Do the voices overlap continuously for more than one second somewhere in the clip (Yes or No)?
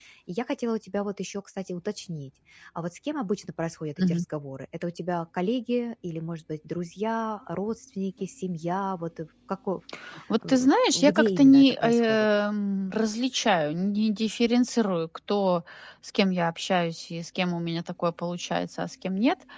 Yes